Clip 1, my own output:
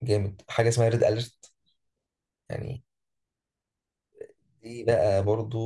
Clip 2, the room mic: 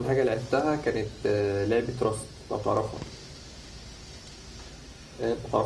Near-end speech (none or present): present